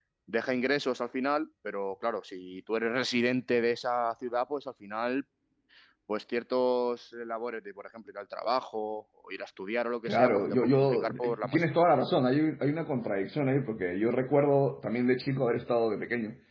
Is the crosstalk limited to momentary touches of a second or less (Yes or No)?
No